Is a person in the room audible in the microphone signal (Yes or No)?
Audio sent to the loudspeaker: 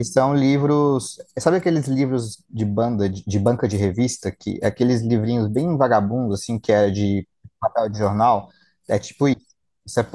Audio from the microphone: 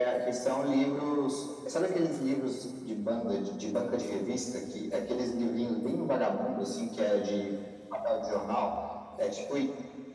No